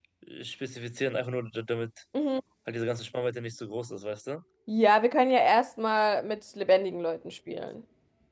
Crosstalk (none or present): none